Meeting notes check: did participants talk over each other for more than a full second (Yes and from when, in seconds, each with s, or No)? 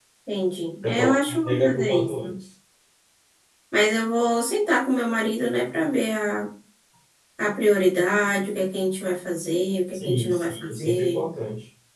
Yes, from 0.8 s